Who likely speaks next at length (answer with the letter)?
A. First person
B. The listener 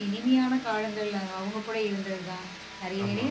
A